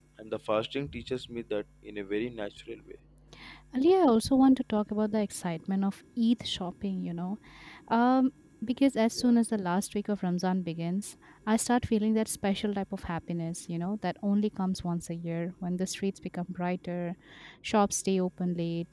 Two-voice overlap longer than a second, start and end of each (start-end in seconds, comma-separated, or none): none